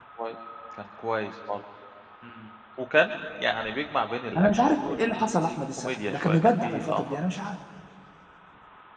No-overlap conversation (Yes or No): No